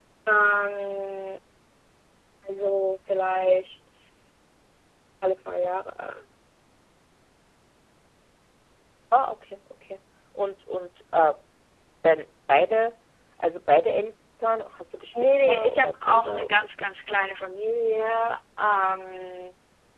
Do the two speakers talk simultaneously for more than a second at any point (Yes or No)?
Yes